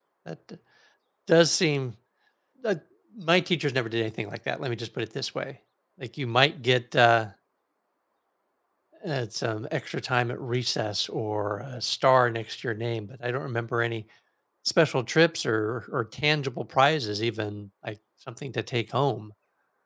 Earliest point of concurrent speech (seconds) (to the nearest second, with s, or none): none